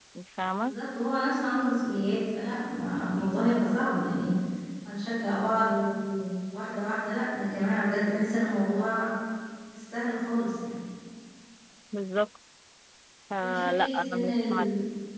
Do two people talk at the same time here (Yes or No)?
Yes